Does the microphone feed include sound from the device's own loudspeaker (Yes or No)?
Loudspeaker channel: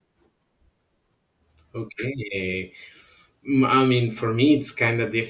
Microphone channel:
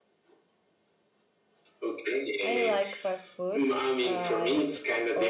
Yes